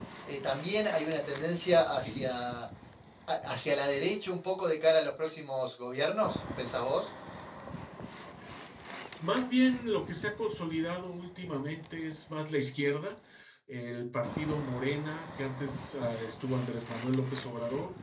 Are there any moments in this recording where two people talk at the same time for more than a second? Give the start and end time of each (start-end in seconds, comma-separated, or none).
none